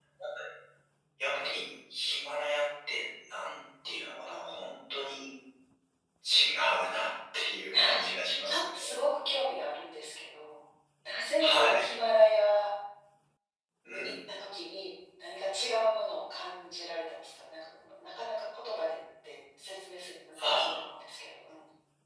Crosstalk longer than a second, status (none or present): none